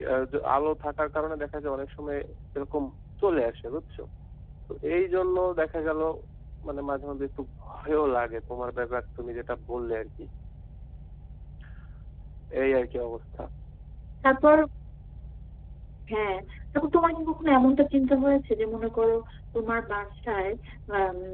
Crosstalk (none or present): none